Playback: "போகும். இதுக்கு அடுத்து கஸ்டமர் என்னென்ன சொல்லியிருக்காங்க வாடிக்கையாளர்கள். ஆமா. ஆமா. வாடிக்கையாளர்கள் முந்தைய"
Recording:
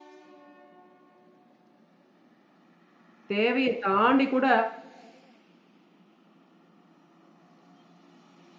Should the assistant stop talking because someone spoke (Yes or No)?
Yes